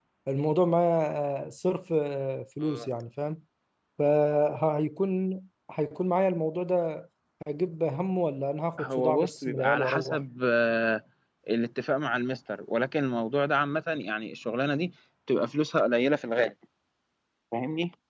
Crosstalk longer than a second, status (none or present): present